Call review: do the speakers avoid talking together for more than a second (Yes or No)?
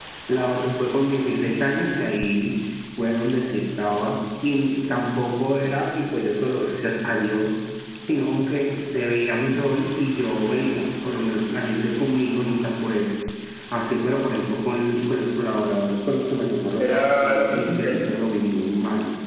No